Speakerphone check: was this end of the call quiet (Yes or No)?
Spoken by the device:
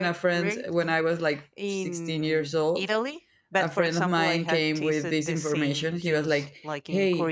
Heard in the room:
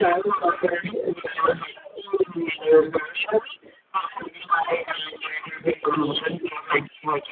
Yes